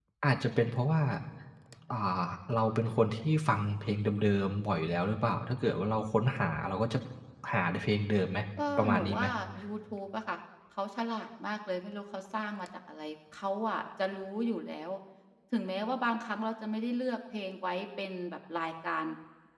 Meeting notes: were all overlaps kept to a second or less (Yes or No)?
Yes